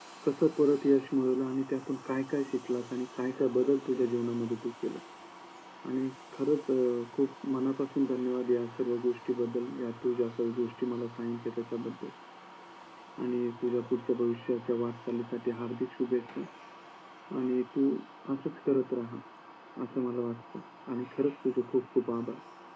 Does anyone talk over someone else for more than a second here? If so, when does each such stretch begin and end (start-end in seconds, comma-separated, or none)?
none